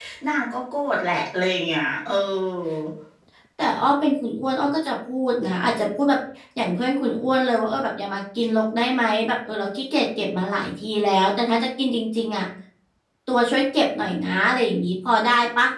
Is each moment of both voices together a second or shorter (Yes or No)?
Yes